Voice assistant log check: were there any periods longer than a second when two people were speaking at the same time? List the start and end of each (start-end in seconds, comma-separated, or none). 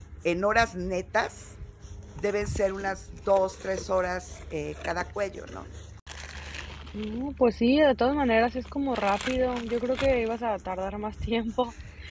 none